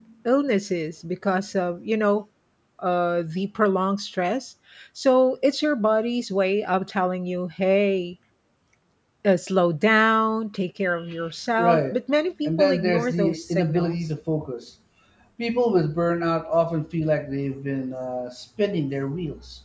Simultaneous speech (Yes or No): Yes